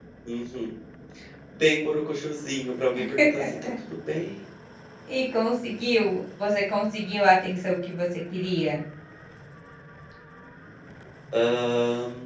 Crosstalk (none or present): none